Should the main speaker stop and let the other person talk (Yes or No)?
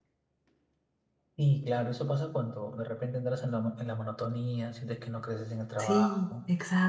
Yes